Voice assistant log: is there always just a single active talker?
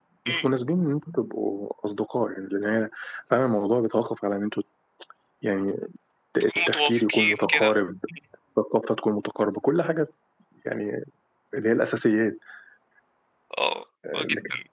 No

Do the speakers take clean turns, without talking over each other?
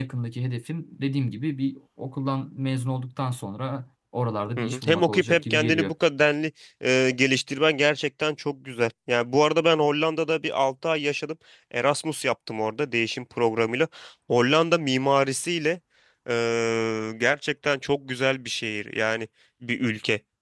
No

